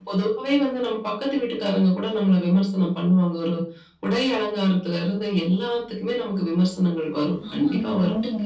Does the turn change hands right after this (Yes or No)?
No